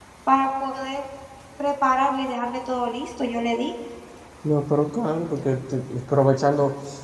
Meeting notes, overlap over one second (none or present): none